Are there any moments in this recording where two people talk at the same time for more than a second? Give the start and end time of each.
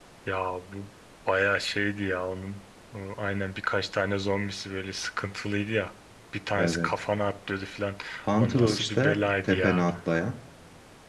8.4-9.8

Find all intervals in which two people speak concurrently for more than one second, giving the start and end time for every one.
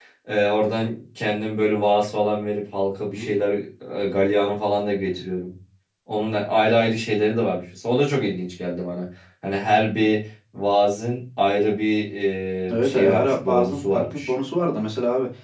12.8-14.3

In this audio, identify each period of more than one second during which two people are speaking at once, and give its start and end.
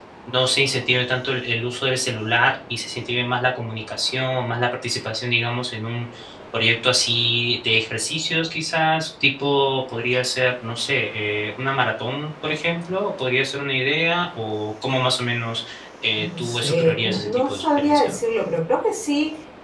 16.2-18.2

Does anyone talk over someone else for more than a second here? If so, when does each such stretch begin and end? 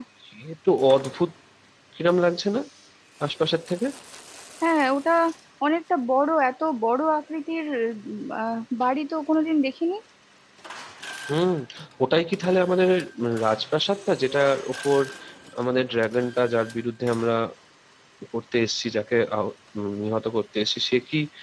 none

